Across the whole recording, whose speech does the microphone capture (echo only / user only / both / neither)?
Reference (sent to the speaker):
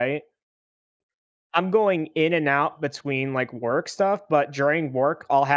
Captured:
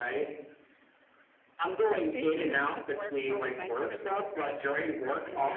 both